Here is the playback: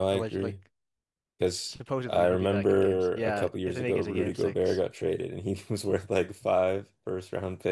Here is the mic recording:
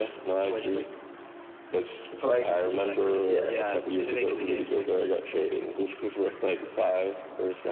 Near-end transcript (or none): Like yeah.